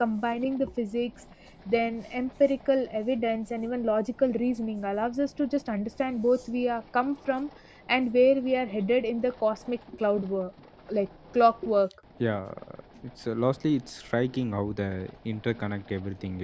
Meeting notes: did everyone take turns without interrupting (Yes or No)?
Yes